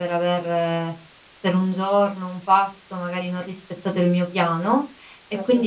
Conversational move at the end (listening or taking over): listening